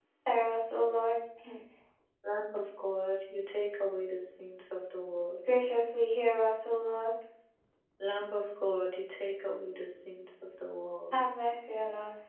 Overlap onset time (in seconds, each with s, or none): none